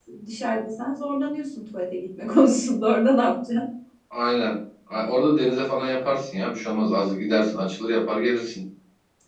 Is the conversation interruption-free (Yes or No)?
Yes